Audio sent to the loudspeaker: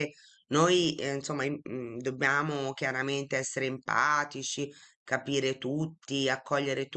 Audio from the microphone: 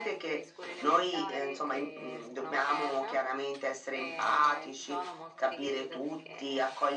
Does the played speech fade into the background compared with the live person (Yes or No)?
No